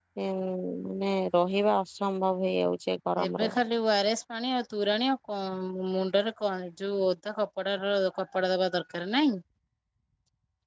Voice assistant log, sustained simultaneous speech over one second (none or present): none